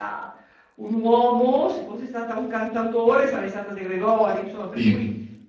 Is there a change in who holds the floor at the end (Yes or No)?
No